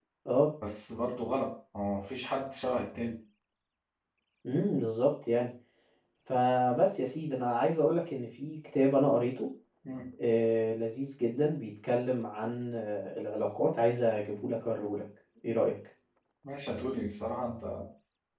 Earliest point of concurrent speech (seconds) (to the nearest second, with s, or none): none